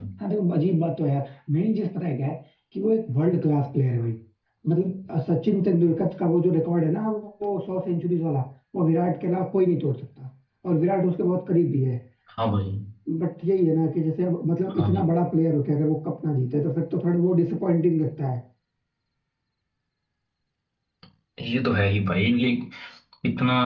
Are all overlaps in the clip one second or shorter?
Yes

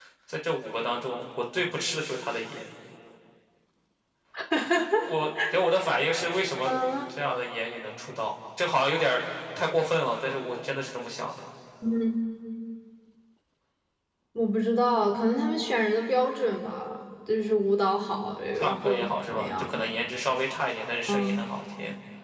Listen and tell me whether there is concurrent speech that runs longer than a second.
Yes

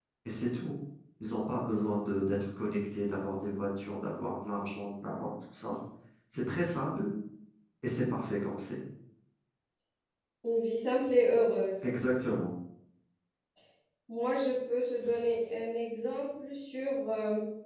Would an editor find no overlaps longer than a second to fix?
Yes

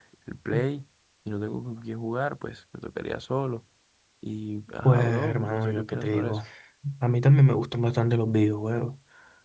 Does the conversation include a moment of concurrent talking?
Yes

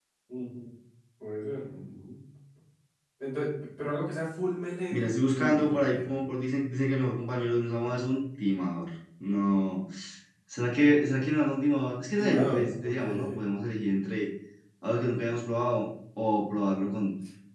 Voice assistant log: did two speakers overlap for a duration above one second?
Yes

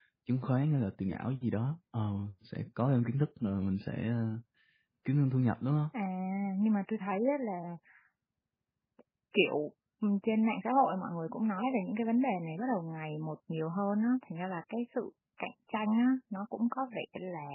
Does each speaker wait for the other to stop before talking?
Yes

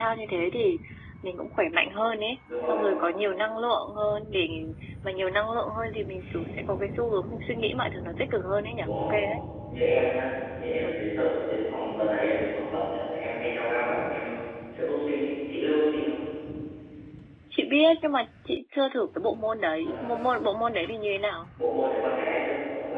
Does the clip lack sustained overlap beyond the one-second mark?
Yes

